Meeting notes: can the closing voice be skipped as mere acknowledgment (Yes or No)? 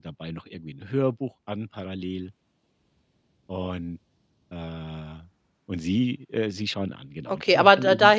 No